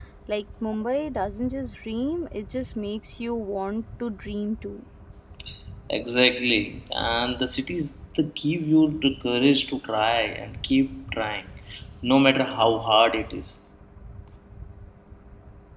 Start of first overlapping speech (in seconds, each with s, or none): none